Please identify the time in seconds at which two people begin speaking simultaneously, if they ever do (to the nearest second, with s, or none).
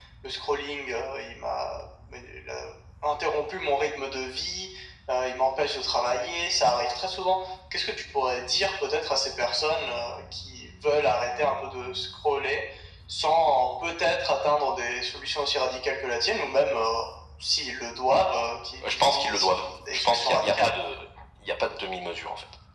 19 s